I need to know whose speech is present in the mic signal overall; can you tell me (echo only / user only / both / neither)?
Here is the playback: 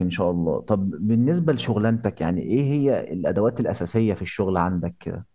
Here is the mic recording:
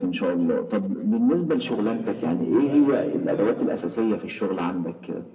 both